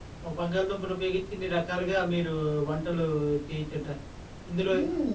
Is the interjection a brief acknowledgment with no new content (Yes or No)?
Yes